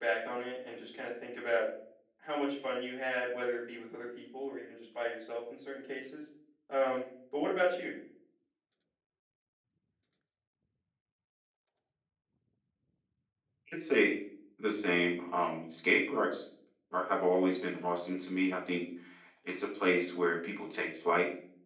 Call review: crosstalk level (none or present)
none